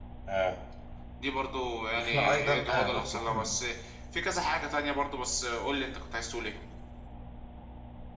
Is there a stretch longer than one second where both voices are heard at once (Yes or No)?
Yes